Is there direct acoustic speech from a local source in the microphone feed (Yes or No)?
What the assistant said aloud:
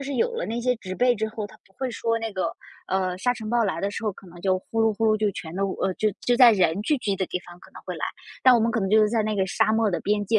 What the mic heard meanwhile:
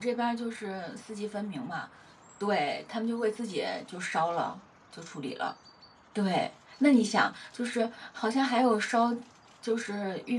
Yes